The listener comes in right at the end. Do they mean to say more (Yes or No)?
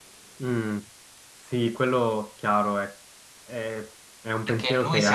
Yes